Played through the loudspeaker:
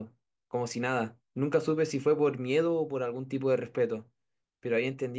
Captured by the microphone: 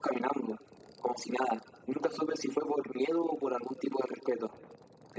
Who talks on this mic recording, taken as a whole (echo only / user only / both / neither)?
echo only